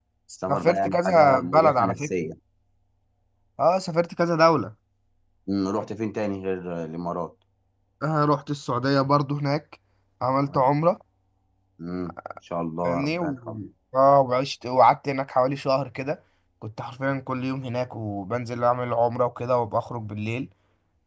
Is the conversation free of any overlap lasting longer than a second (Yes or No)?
No